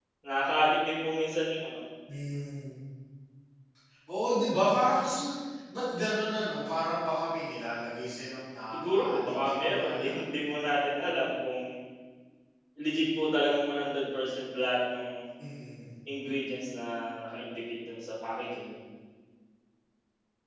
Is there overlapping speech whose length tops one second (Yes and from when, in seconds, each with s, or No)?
Yes, from 8.7 s